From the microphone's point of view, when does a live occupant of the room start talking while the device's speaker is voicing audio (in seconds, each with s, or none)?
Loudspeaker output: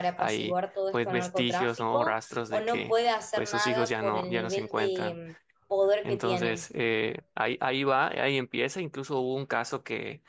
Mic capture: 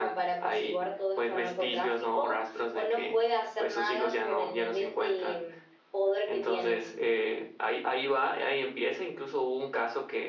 none